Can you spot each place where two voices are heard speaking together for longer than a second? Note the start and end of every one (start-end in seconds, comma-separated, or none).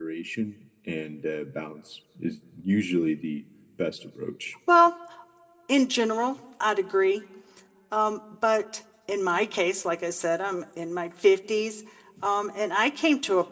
none